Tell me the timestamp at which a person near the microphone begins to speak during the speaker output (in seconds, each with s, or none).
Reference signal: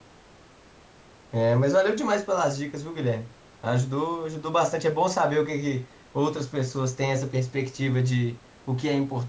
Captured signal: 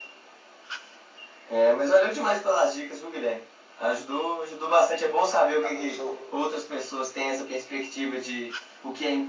5.5 s